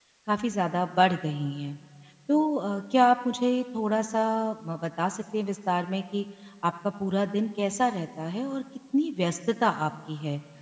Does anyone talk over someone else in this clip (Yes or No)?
No